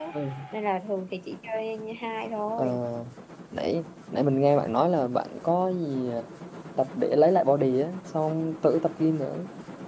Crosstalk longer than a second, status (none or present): none